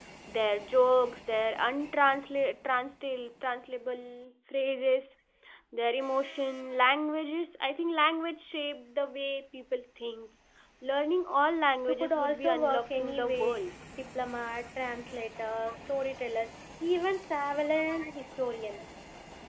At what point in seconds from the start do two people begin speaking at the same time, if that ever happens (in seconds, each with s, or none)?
11.9 s